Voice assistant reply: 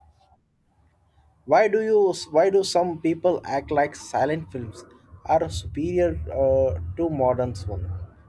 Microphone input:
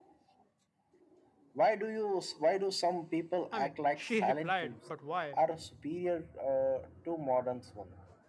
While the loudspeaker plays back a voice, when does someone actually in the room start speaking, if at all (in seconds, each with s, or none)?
3.5 s